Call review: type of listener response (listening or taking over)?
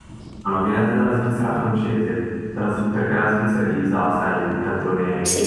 listening